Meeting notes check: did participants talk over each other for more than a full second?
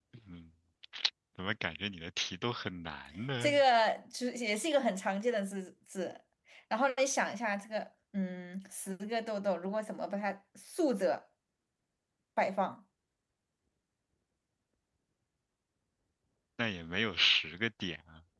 No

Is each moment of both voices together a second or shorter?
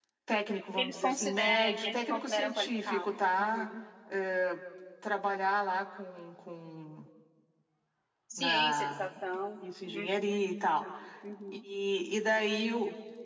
No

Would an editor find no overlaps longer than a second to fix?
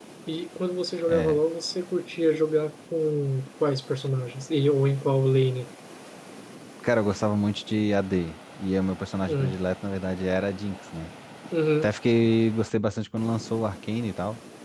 Yes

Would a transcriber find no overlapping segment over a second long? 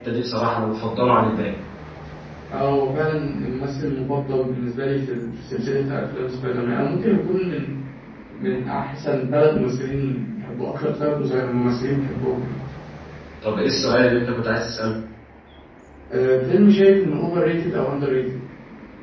Yes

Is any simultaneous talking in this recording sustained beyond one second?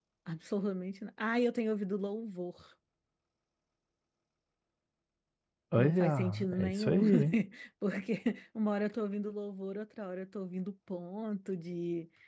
Yes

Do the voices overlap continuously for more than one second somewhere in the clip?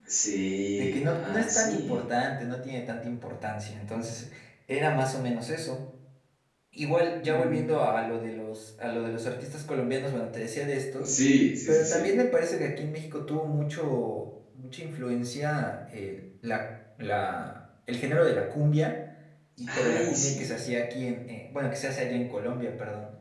Yes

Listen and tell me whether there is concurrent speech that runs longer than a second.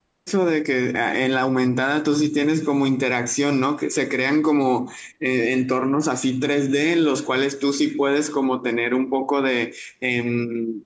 No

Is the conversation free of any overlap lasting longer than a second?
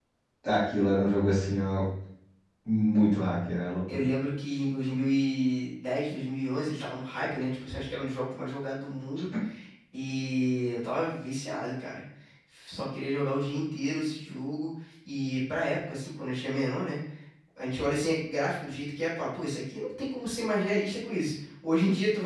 Yes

